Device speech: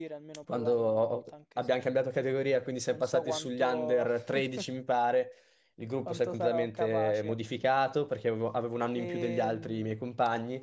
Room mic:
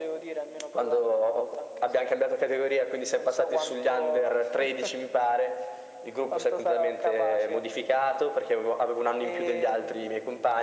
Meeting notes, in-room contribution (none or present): none